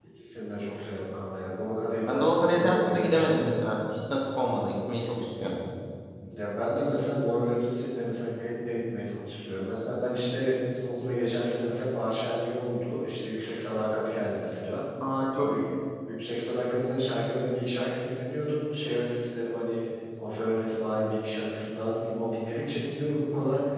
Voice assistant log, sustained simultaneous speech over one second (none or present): present